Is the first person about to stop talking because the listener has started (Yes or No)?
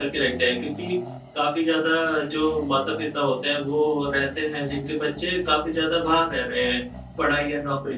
No